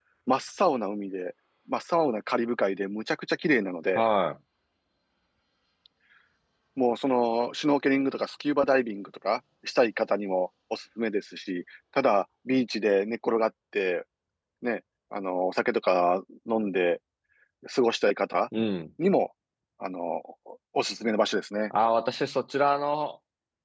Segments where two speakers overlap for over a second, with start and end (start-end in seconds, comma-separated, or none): none